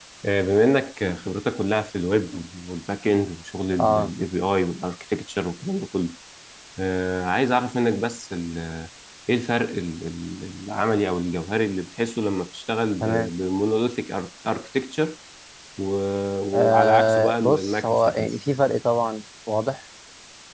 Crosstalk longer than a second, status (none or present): present